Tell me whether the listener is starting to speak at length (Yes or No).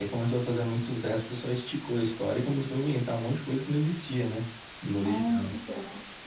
Yes